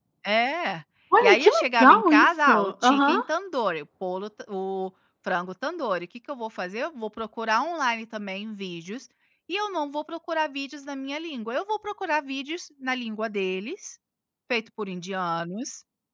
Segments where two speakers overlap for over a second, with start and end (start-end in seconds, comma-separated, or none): 1.2-3.2